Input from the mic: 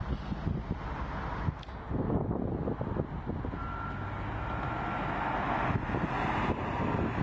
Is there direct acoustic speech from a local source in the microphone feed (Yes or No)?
No